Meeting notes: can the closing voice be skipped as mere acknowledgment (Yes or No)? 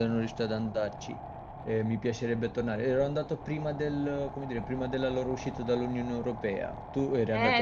No